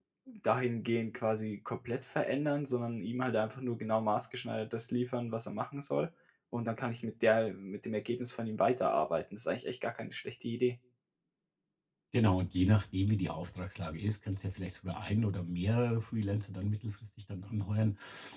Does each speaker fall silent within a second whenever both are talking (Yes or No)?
Yes